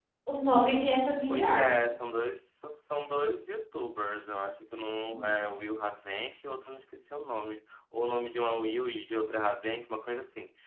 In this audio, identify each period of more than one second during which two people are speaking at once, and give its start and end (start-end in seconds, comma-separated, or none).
none